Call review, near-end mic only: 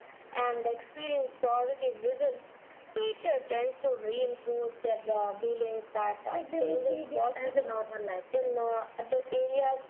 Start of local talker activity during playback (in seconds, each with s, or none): 6.3 s